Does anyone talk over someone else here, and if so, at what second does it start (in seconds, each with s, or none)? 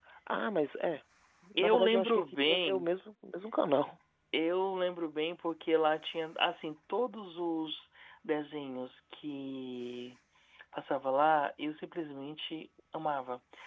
1.6 s